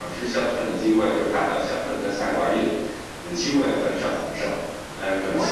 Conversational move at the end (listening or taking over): taking over